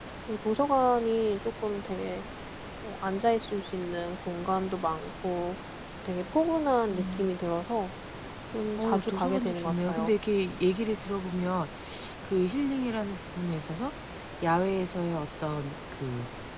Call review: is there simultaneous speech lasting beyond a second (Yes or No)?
Yes